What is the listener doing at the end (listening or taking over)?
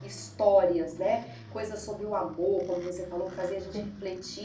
listening